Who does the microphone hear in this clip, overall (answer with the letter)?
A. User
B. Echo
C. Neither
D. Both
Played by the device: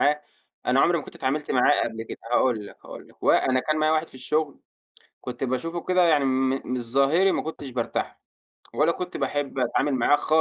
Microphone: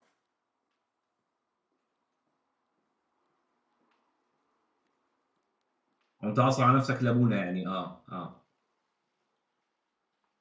A